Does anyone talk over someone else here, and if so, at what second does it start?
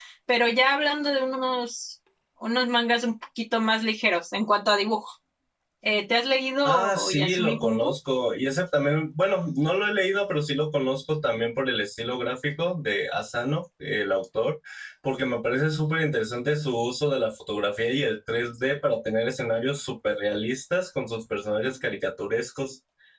6.7 s

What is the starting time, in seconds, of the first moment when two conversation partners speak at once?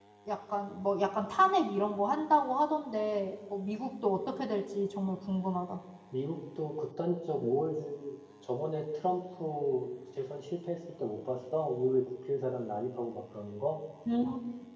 none

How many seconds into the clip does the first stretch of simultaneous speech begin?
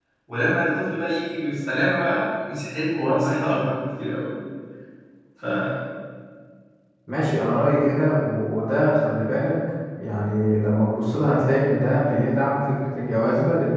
none

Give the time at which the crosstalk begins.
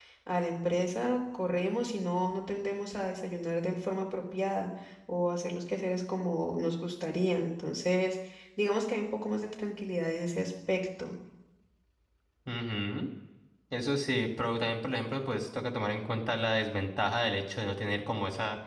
none

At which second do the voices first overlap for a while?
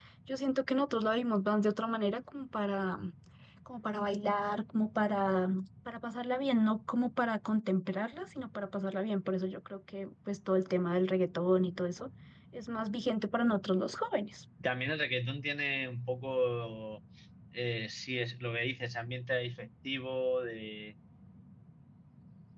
none

